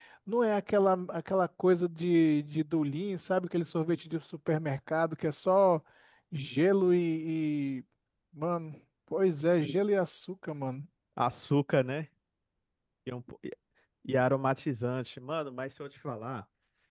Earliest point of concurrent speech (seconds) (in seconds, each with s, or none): none